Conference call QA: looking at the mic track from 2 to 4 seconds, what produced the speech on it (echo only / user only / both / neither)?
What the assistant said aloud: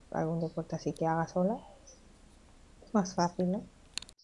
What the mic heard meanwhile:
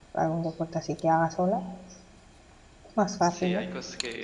both